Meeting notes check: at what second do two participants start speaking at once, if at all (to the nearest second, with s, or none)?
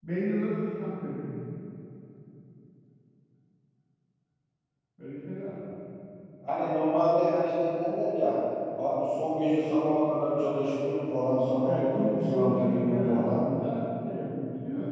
12 s